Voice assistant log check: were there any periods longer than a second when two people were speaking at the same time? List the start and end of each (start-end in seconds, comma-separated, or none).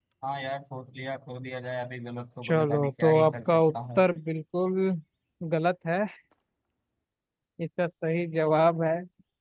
2.4-4.0